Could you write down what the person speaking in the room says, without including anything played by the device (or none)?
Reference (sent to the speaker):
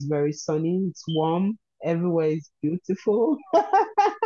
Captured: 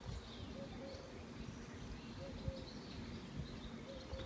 none